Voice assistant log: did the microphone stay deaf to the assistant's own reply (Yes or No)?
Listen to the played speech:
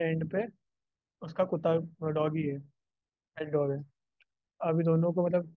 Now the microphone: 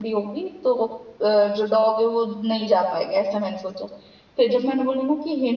Yes